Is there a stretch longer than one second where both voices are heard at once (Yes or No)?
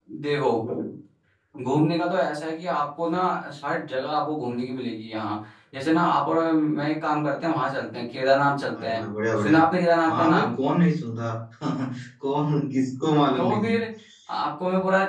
No